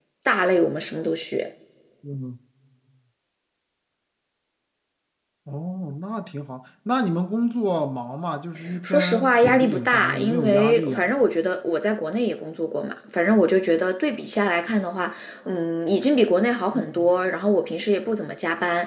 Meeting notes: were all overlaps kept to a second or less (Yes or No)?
No